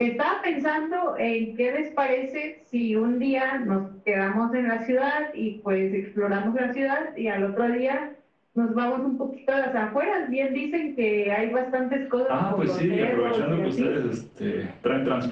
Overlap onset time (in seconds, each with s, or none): 12.3 s